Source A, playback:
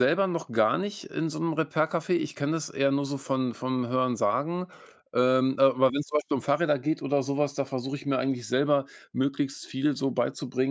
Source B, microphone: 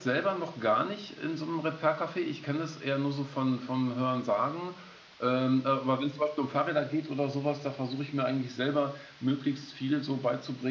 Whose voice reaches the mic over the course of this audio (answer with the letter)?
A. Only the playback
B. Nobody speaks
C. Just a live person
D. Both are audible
A